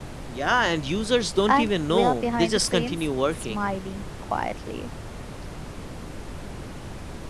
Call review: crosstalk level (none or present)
present